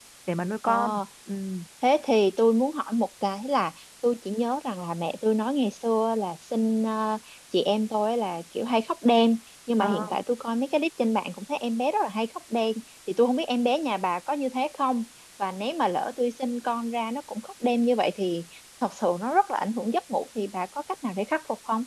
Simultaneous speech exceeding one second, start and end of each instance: none

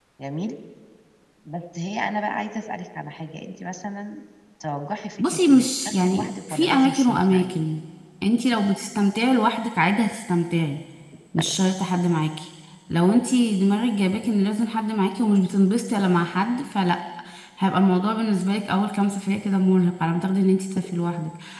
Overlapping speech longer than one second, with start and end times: 5.2-7.5

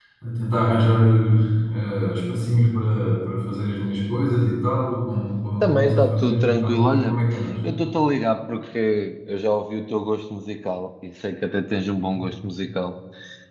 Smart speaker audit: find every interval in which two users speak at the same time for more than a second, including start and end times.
5.6-7.2

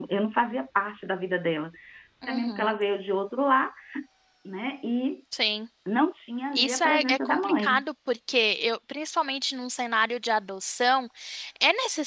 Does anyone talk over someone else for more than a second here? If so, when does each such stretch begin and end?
6.5-7.8

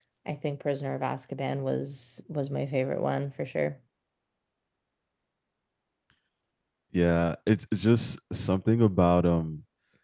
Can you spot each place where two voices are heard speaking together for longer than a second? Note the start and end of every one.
none

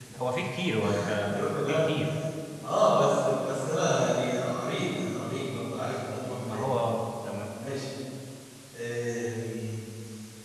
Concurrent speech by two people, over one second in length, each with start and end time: none

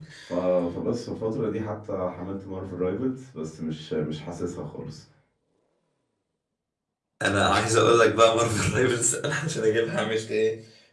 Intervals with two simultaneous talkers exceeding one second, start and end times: none

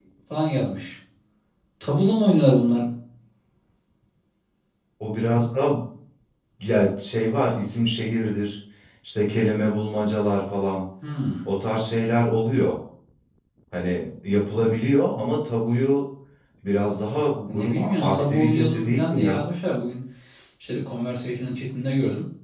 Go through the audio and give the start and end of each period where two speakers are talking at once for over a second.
17.5-19.4

